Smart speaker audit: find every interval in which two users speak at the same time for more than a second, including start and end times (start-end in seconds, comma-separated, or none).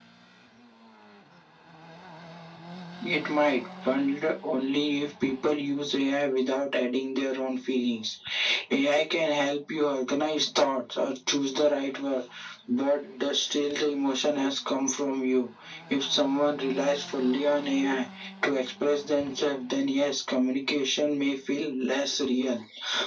none